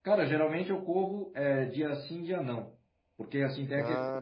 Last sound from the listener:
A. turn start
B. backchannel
B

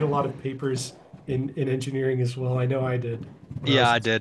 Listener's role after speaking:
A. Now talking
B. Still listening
A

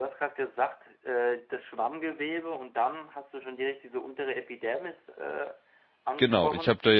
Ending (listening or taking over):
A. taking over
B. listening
A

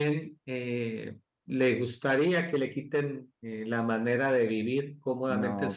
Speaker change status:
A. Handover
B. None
B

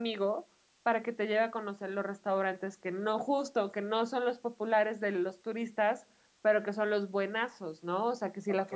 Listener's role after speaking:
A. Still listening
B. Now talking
A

